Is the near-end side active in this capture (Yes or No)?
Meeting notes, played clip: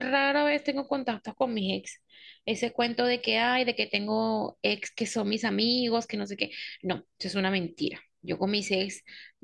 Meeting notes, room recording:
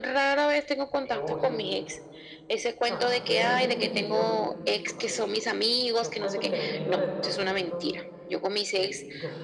Yes